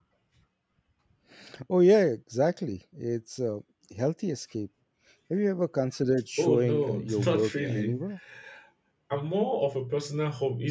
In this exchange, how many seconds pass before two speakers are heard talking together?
6.4 s

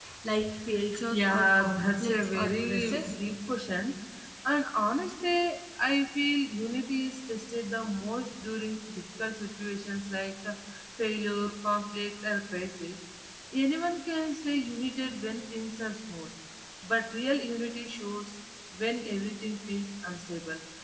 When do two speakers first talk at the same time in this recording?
1.1 s

